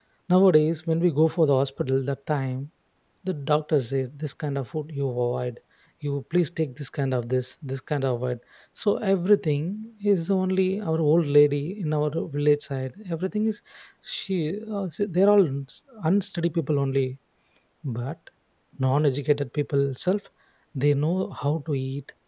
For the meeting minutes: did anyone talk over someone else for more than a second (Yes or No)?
No